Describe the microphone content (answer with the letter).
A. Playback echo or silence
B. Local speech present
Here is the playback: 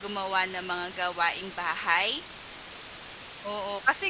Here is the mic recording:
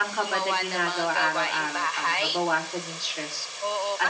B